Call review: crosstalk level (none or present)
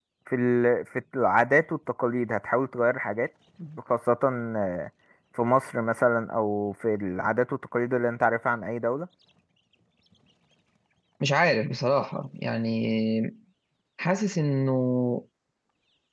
none